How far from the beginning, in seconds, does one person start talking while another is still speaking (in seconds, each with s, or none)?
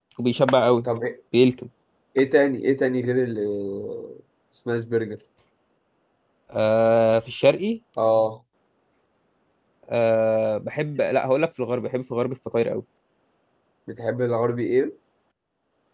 none